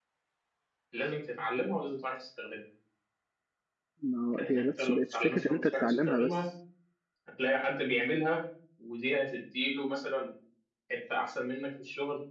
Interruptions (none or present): present